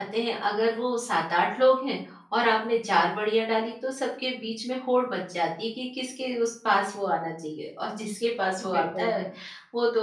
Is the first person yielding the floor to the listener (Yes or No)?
No